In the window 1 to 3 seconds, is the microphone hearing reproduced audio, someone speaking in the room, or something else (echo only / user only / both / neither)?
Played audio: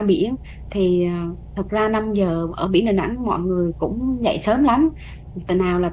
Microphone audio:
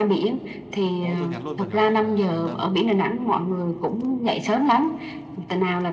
both